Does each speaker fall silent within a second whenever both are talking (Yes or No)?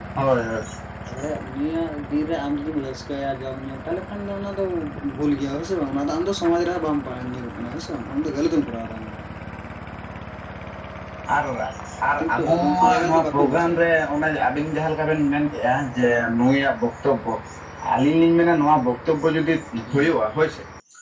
No